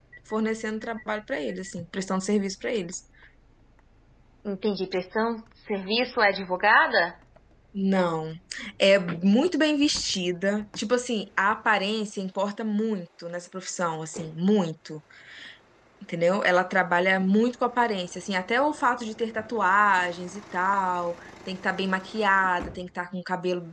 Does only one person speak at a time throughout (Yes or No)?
Yes